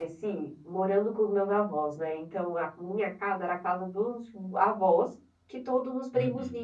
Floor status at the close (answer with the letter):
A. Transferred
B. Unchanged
B